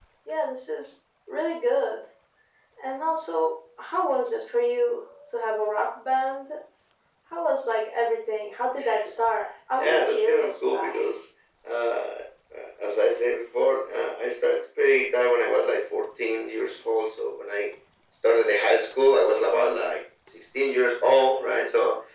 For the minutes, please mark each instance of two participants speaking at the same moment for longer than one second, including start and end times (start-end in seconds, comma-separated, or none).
9.8-11.2